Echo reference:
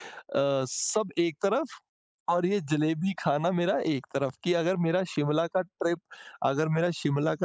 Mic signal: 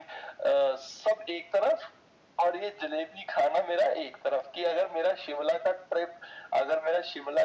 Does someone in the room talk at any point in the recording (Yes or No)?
No